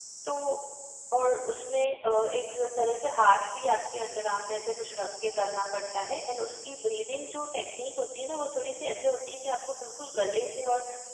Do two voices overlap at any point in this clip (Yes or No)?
No